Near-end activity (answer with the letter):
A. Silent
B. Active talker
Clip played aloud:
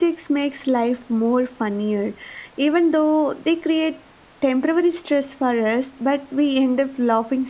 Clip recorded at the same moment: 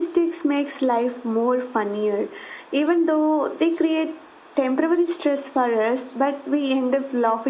A